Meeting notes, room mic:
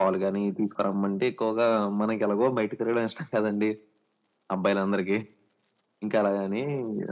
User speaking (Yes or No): No